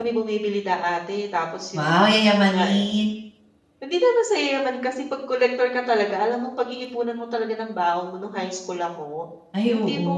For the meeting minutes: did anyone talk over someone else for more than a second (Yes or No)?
No